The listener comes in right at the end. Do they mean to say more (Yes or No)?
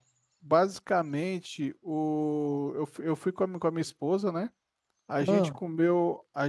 No